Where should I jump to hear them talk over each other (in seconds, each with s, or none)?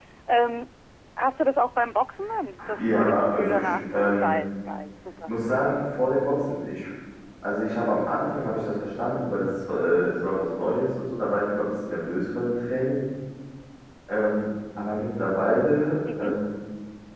2.8 s